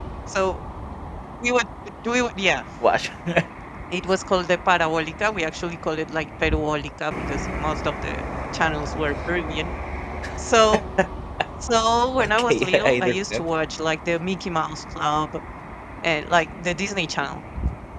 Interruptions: present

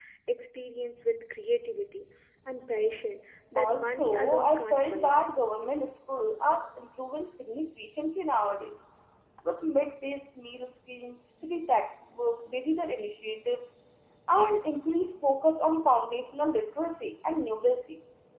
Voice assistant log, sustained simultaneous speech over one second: present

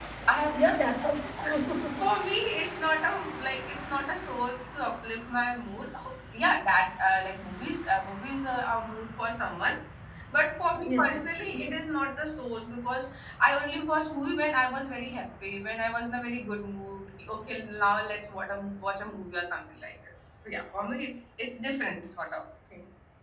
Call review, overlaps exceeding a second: none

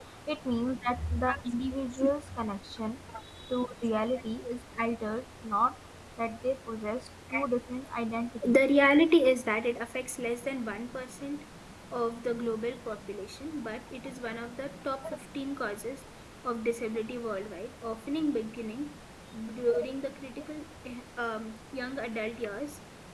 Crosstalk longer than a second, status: none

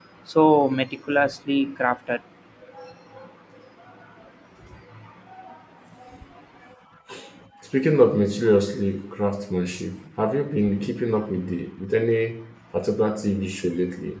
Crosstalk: none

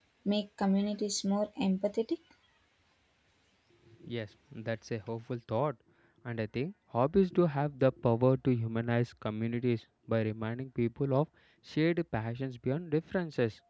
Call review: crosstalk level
none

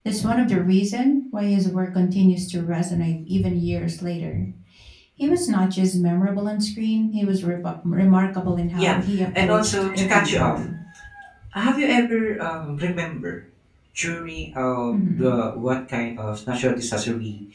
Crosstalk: present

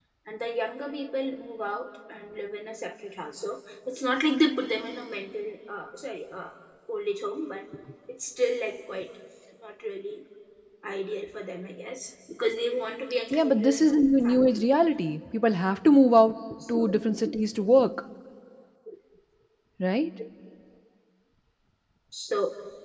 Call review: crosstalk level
present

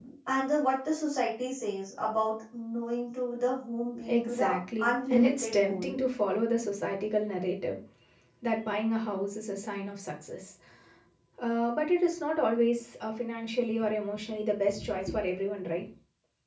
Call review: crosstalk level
present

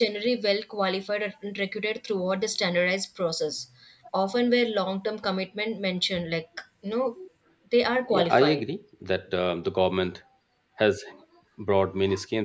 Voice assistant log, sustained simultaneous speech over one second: none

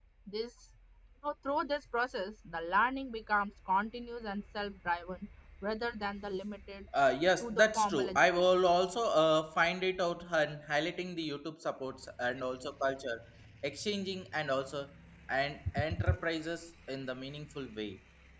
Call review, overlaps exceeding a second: present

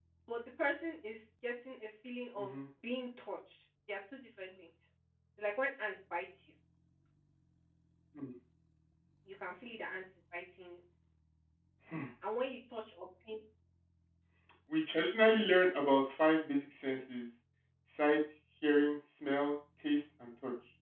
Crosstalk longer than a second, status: none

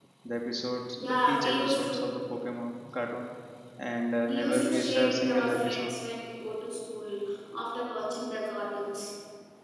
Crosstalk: present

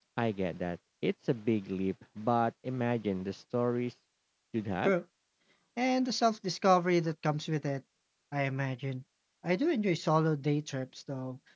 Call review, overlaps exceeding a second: none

